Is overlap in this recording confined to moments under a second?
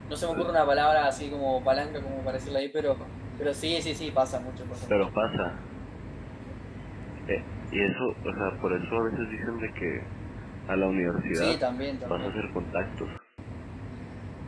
Yes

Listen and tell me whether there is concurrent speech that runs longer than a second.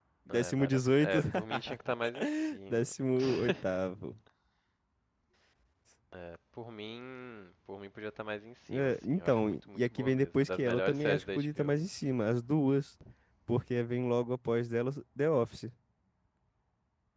Yes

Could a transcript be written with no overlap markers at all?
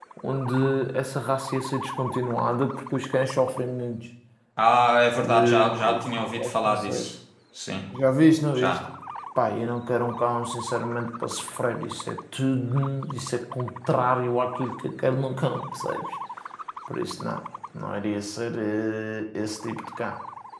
No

